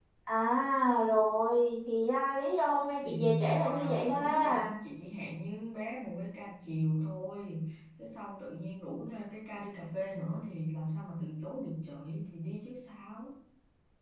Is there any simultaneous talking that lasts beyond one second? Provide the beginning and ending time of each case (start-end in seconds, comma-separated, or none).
3.0-4.7